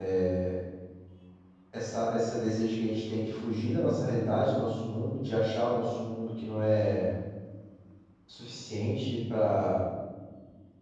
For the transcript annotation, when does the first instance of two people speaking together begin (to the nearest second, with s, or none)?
none